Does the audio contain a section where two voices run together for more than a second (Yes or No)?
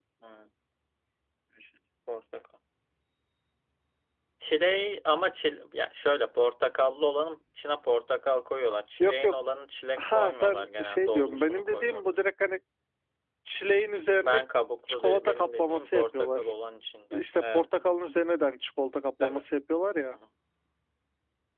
Yes